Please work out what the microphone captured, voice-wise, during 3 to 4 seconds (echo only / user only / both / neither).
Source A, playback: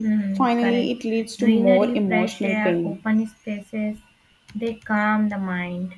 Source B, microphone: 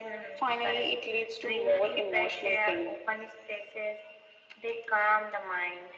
echo only